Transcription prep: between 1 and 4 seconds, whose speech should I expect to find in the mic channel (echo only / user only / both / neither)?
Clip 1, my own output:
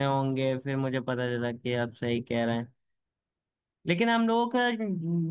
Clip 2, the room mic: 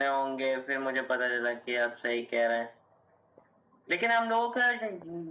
echo only